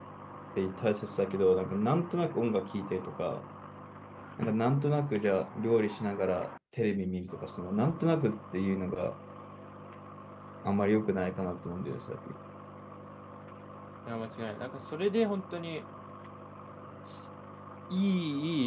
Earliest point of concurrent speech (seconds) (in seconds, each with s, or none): none